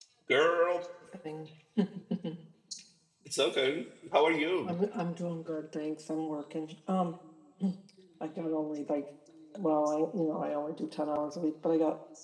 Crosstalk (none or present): none